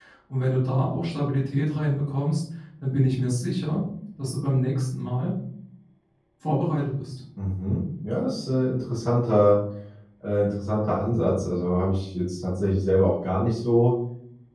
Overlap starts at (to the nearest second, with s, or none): none